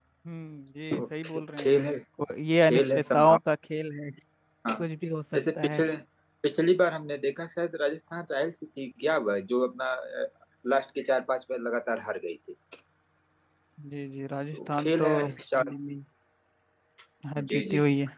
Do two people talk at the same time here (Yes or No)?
Yes